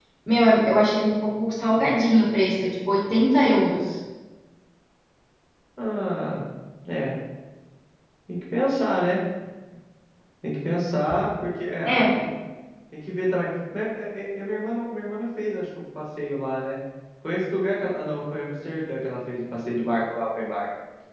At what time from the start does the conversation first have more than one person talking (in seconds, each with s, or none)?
none